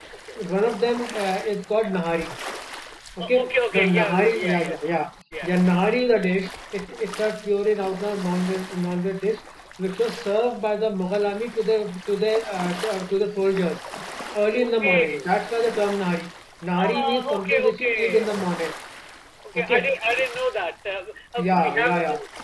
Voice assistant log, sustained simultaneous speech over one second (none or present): present